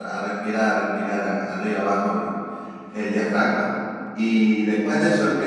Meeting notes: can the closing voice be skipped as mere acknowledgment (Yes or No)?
Yes